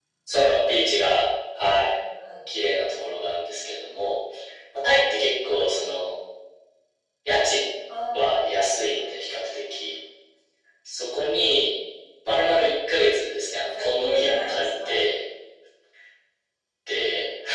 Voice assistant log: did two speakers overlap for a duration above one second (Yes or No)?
Yes